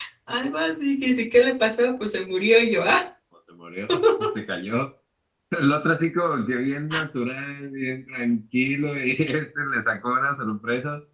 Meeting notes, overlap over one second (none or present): none